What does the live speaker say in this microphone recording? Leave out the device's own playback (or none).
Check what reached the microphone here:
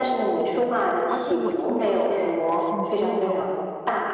而且我听上去的感觉是你是那种